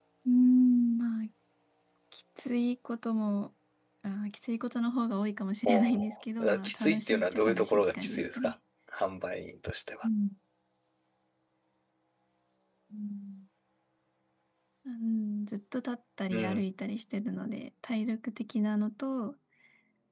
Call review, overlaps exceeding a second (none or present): present